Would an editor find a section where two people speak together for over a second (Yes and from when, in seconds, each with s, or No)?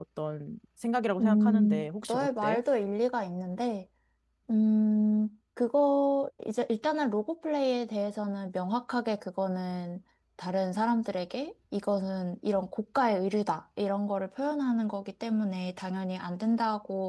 Yes, from 1.2 s